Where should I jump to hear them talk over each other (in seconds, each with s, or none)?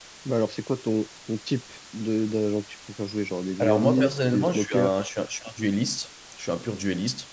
3.6 s